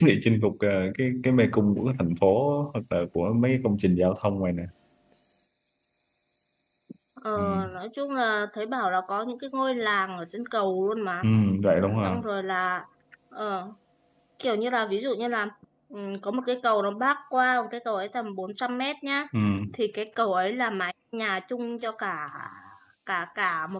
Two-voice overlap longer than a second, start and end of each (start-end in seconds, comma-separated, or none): none